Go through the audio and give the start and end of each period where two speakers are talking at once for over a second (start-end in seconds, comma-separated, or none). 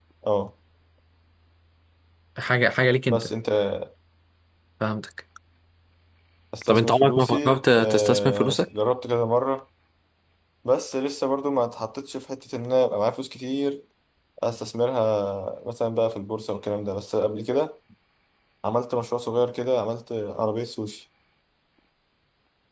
6.7-8.7